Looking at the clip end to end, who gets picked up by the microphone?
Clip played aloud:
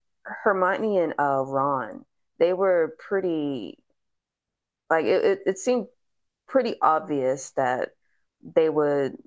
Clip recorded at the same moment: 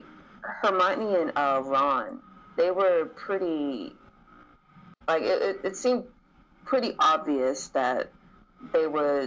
echo only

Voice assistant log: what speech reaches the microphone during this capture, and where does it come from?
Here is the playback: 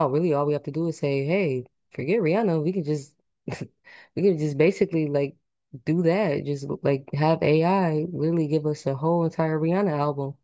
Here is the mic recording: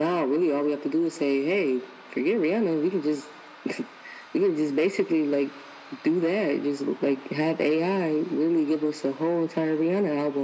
echo only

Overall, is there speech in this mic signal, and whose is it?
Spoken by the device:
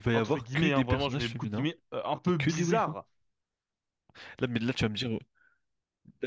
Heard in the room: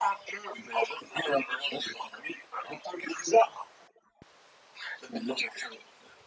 echo only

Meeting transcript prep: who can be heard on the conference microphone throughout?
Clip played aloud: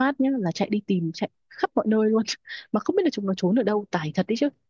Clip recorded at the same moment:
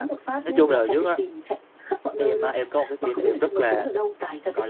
both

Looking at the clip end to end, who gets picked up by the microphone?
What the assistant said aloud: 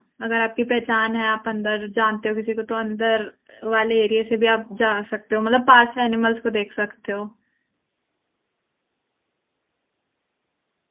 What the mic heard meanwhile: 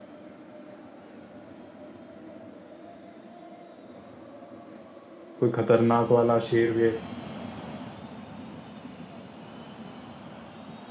user only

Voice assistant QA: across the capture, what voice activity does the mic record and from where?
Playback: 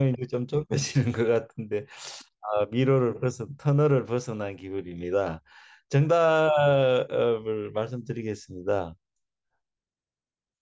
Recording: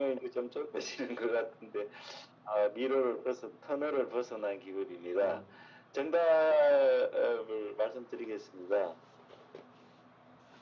both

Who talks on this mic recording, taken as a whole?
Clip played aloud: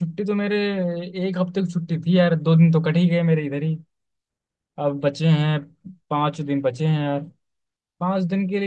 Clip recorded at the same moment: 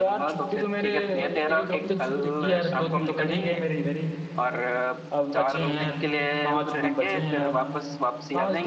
both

